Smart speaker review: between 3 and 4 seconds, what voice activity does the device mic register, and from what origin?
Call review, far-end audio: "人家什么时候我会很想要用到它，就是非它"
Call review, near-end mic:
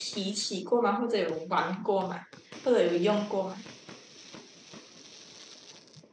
user only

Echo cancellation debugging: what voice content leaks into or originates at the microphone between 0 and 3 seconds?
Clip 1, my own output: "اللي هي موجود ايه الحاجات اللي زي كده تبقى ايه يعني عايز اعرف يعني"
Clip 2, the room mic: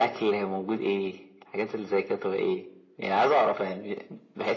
echo only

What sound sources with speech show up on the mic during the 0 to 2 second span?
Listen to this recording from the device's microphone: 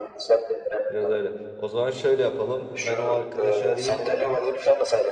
both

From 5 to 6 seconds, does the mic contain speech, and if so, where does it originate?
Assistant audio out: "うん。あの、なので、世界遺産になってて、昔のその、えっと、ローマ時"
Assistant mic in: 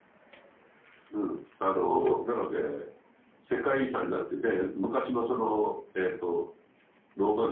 echo only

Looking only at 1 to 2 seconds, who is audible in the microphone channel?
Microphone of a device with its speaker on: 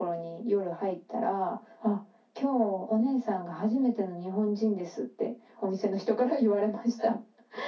echo only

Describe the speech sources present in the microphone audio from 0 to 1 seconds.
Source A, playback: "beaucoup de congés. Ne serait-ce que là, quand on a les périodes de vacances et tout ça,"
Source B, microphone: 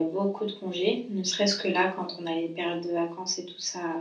echo only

